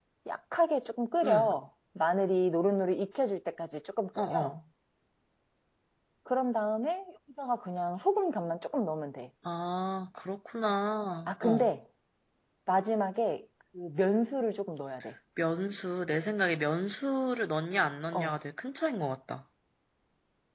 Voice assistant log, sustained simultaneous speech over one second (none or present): none